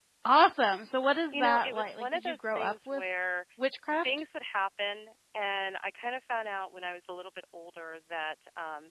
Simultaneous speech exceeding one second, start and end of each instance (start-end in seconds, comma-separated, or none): 1.3-3.0